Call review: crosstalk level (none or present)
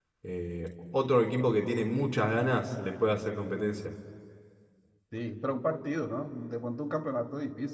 none